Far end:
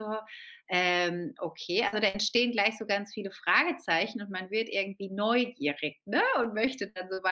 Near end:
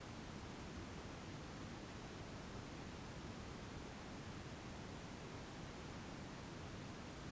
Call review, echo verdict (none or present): none